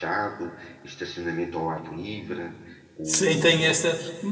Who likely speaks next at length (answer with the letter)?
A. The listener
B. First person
A